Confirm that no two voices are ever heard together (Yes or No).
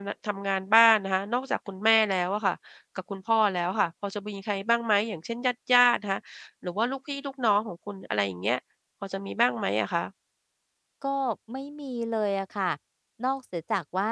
Yes